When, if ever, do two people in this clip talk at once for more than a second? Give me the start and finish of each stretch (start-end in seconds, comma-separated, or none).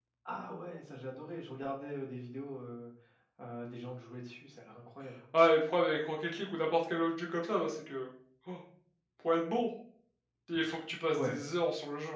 none